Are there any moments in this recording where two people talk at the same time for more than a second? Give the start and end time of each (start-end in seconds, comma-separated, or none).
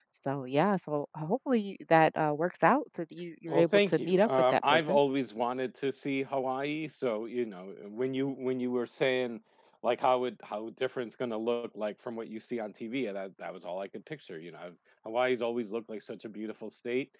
3.5-5.0